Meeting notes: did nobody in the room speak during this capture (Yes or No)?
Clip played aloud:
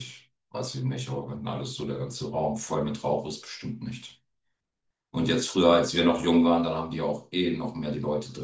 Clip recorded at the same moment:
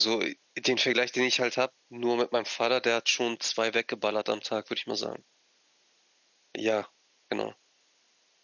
No